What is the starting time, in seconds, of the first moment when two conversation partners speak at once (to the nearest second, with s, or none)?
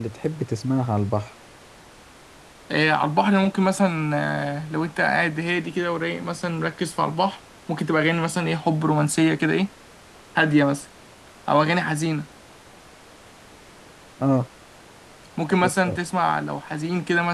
none